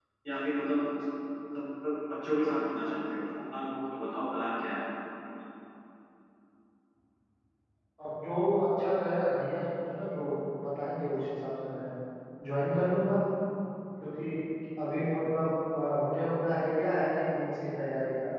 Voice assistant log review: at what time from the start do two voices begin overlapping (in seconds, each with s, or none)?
none